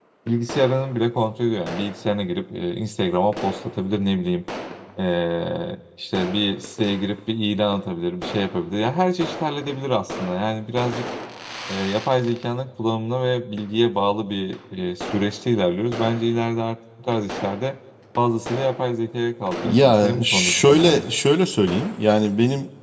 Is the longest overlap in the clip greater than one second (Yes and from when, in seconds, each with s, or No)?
Yes, from 19.6 s